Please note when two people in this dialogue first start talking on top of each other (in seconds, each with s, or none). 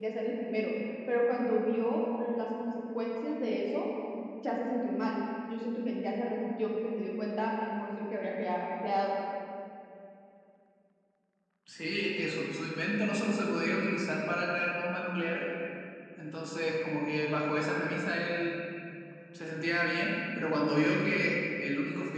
none